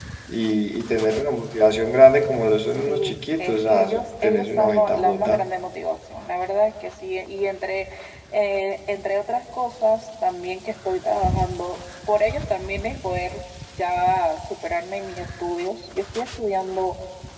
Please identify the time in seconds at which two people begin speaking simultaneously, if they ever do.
3 s

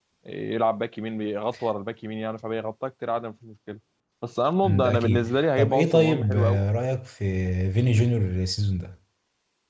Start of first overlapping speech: 5 s

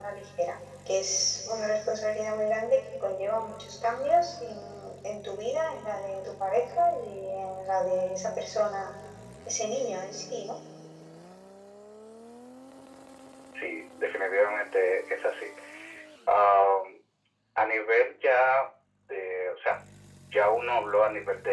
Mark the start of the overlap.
none

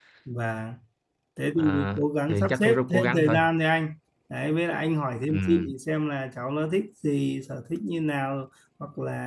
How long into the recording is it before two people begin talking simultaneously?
2 s

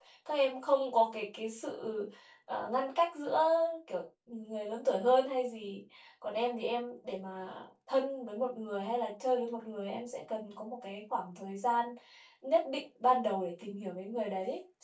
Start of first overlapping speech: none

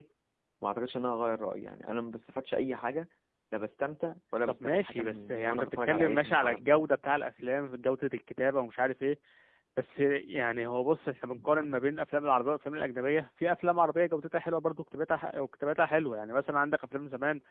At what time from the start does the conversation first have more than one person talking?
5 s

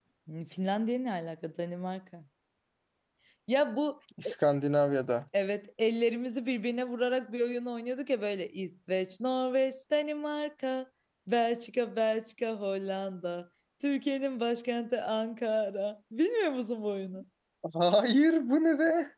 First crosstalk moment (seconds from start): none

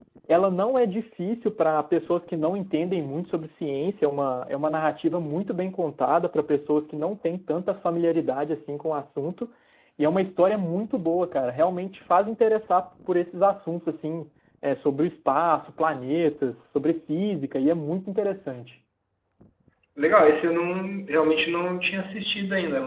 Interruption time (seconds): none

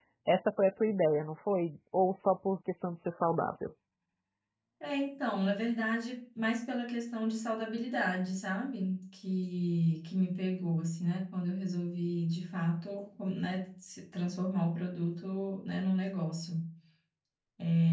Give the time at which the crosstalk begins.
none

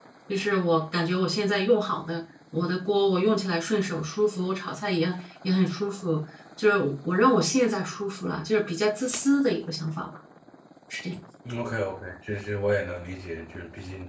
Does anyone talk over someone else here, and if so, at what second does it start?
none

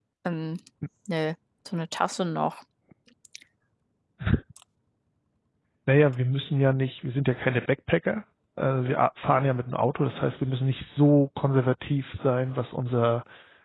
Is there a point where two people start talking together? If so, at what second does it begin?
none

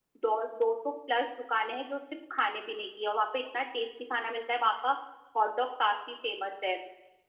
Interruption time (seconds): none

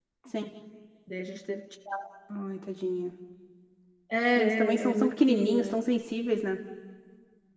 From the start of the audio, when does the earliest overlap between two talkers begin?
4 s

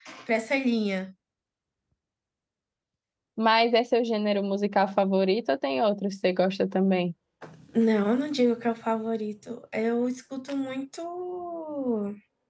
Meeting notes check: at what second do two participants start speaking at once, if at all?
none

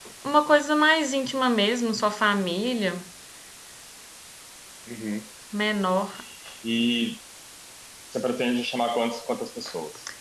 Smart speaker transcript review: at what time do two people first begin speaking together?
none

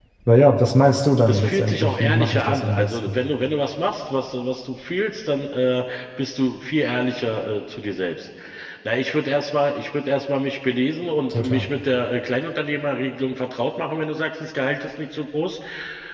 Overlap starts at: 1 s

